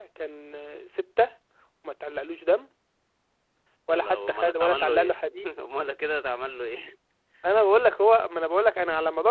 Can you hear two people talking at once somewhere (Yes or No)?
Yes